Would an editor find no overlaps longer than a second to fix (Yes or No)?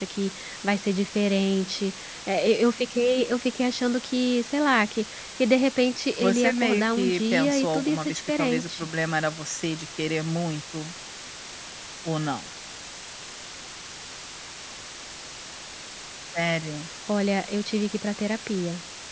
No